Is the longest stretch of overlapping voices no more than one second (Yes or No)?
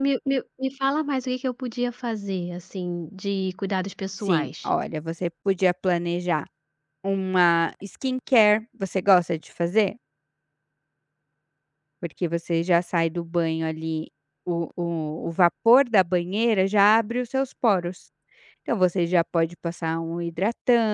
Yes